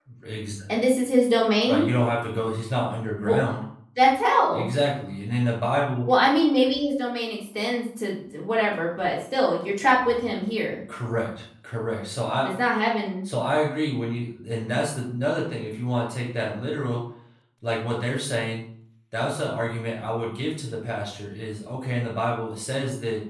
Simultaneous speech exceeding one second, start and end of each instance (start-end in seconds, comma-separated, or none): none